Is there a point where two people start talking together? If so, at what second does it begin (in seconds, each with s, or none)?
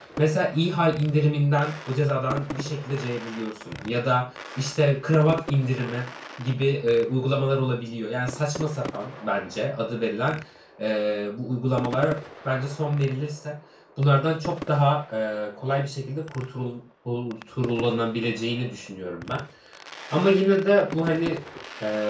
none